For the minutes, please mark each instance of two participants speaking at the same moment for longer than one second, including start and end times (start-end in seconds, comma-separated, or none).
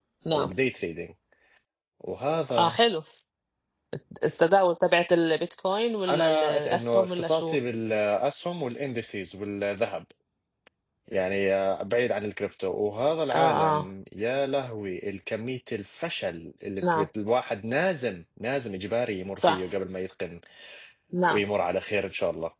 6.1-7.6